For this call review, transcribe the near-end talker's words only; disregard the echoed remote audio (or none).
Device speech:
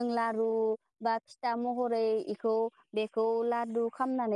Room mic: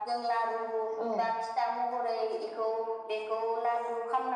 औ